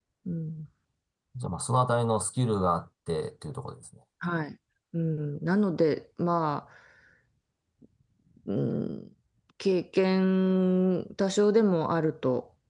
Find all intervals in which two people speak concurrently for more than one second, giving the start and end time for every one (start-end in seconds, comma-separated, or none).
none